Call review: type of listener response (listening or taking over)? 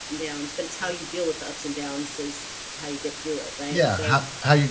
taking over